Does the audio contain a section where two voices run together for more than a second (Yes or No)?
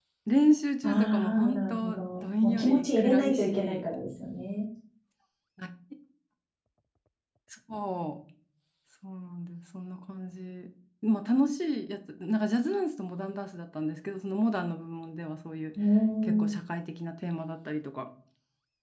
Yes